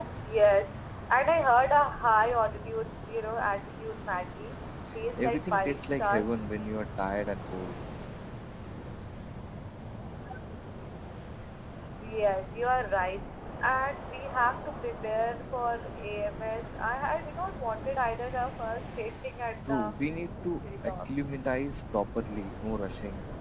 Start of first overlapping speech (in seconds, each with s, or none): 5.2 s